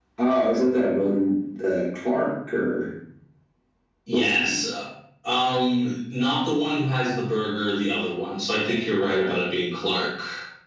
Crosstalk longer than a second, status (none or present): none